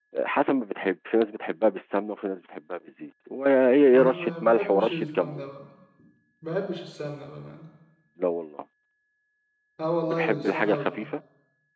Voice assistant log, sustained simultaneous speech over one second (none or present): present